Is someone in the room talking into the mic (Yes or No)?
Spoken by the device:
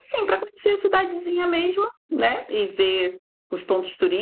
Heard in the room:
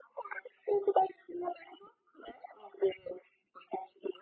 No